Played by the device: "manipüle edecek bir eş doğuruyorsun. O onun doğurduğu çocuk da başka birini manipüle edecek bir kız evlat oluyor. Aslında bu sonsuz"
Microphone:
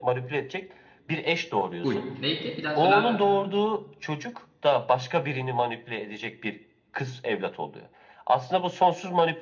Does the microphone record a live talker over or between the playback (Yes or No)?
Yes